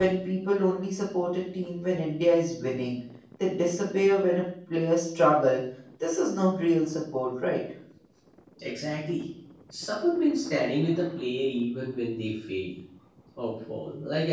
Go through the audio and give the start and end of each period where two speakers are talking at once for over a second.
none

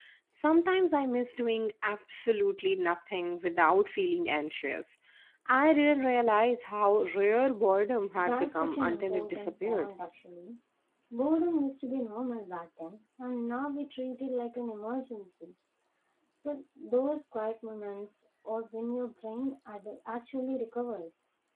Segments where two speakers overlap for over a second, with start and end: 8.2-9.9

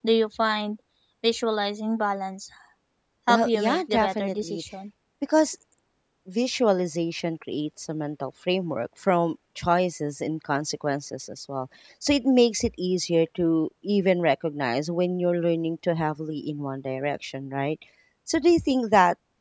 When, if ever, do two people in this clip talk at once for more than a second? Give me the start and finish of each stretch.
3.3-4.6

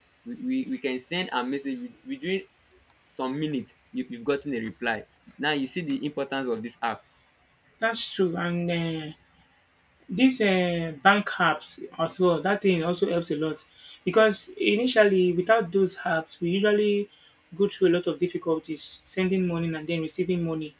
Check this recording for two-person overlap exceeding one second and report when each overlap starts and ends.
none

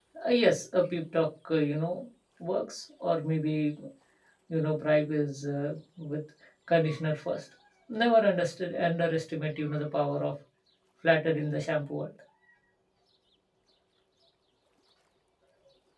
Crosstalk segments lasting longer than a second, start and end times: none

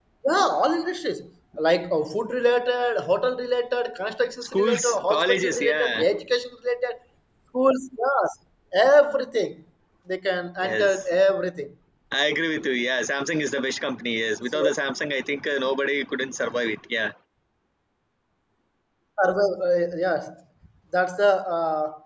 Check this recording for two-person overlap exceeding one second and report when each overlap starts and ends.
4.4-6.0

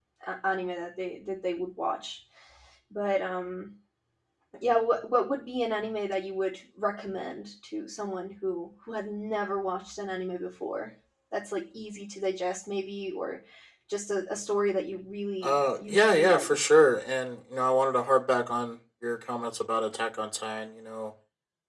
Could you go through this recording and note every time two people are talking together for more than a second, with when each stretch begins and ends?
15.4-16.6

